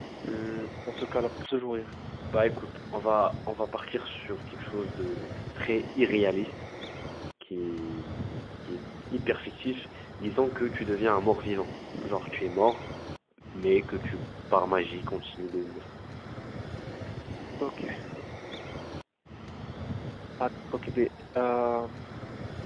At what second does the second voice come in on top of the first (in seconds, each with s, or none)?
none